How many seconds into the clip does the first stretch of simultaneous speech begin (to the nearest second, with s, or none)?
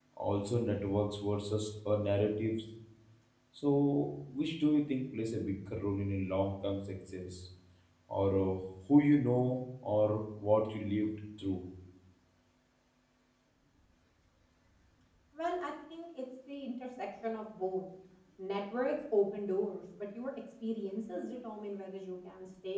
none